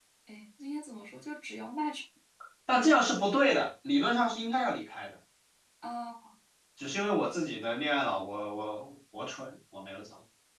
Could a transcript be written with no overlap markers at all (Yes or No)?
Yes